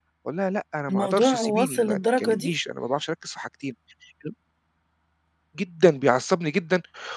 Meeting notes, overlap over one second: present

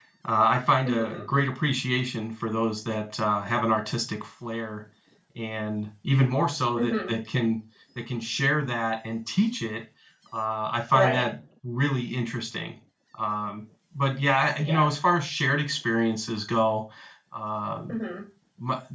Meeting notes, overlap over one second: none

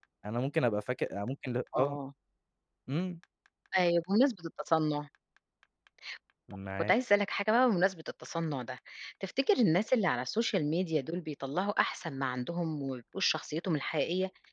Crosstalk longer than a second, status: none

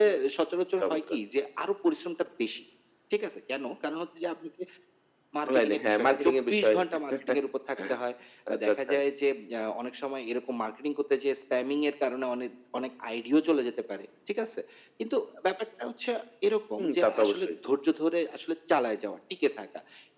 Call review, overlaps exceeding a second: present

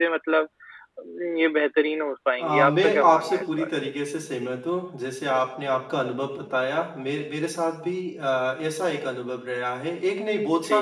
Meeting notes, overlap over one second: present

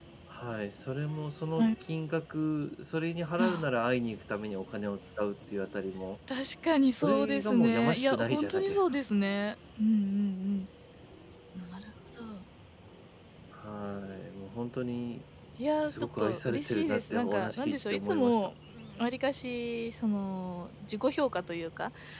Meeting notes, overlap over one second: present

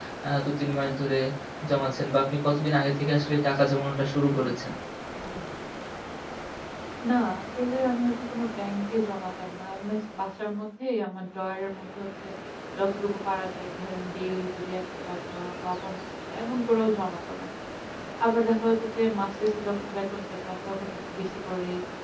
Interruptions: none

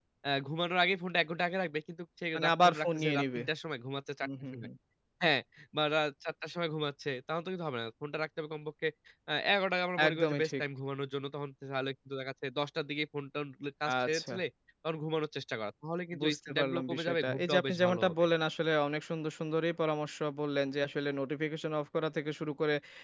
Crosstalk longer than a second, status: present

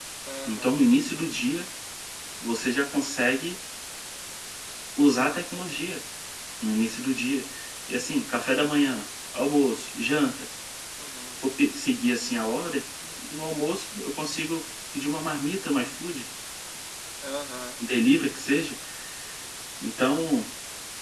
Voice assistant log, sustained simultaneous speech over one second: none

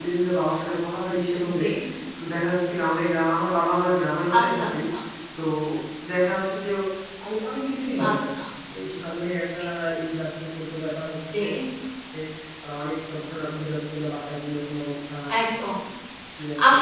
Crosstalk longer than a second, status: none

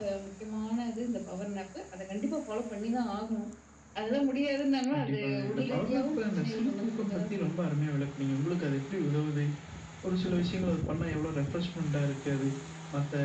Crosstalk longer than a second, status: present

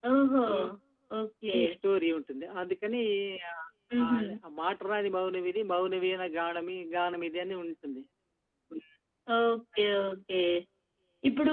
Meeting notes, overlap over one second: none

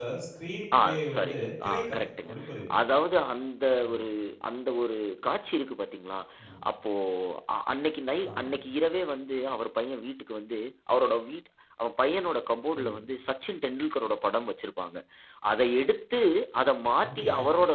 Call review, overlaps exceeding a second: present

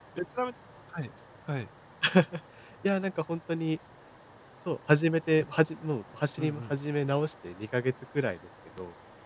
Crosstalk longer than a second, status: none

